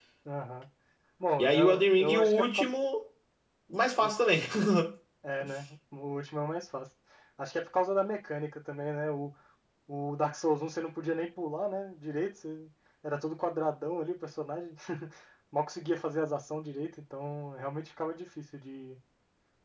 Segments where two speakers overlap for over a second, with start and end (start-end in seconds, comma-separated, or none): 1.4-2.7